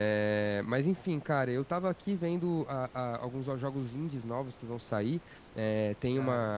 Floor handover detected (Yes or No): No